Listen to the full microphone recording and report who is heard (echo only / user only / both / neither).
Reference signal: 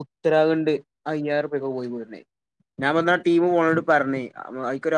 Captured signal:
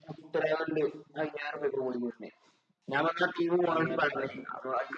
both